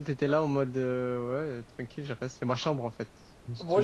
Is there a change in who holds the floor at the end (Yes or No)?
Yes